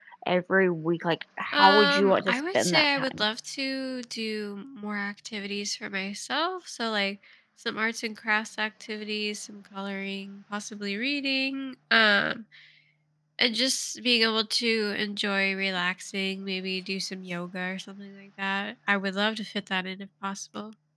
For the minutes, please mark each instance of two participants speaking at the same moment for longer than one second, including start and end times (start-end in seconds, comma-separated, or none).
1.5-3.2